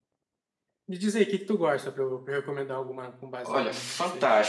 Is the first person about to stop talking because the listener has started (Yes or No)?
Yes